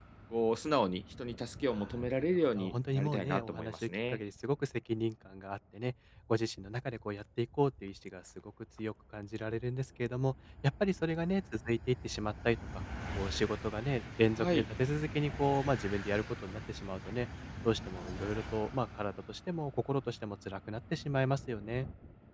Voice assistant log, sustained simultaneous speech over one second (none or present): present